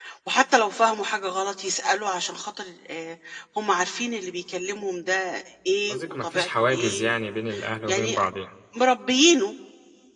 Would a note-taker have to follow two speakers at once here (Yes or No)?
Yes